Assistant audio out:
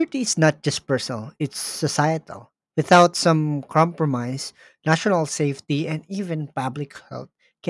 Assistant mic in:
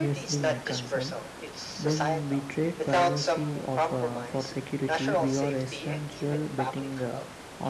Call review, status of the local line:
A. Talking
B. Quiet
A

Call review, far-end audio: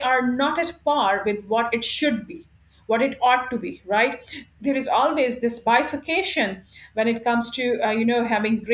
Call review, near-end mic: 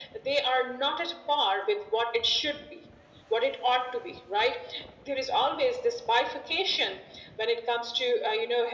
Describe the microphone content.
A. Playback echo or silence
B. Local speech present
A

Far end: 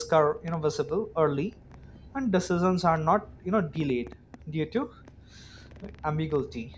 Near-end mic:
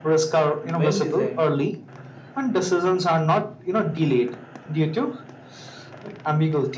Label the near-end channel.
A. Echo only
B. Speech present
B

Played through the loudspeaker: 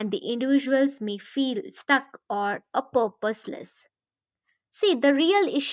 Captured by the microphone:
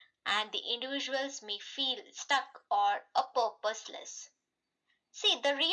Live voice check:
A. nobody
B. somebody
A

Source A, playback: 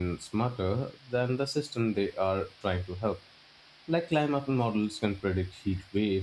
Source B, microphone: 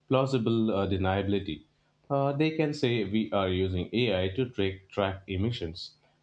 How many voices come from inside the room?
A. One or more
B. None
A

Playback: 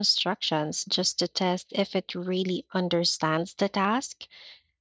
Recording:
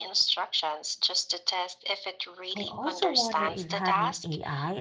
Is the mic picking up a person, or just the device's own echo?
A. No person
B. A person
B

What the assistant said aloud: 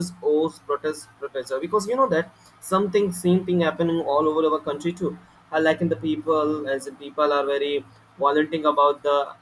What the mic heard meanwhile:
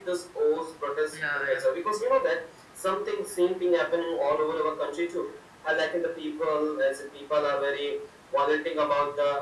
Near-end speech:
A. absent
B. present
B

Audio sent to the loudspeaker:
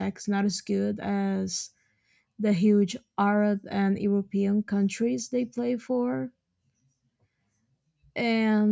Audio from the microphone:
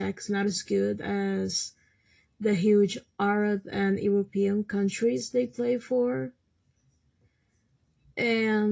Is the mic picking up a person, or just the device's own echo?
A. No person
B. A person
A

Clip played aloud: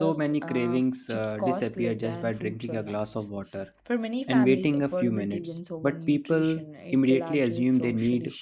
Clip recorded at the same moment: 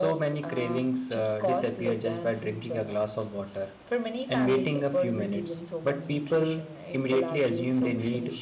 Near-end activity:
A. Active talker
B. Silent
B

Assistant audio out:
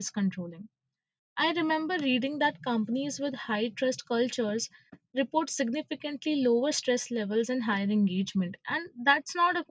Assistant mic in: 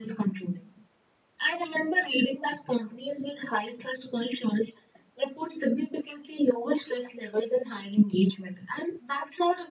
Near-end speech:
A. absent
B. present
A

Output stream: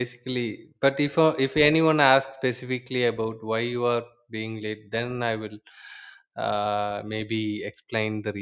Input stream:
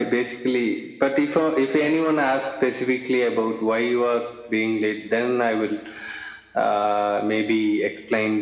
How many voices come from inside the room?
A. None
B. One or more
A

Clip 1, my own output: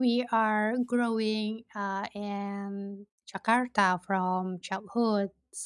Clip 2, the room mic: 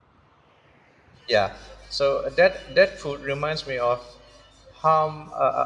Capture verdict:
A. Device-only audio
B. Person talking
B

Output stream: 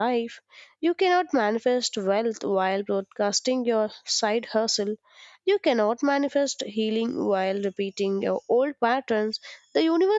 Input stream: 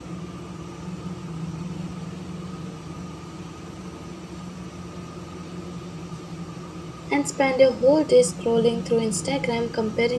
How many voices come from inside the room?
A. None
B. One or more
B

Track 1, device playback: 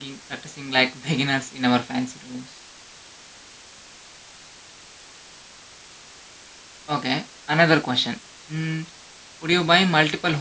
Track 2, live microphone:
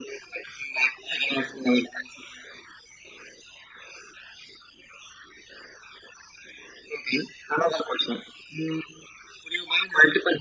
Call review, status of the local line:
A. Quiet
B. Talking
A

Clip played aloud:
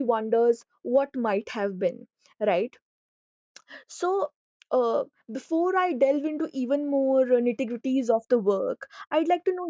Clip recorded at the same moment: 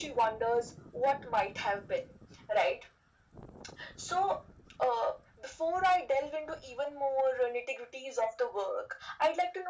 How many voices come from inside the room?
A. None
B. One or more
A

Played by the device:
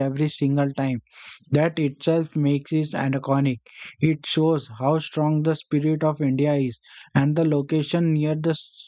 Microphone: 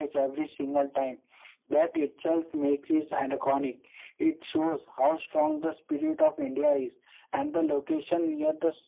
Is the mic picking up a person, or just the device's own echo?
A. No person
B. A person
A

